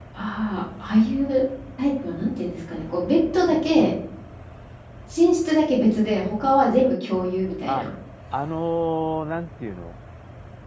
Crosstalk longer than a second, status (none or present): none